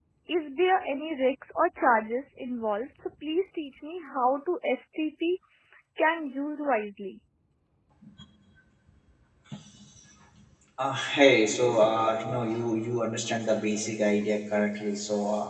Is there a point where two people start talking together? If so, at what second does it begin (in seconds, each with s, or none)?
none